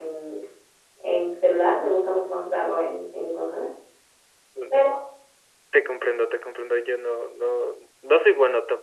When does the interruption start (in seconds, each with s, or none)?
none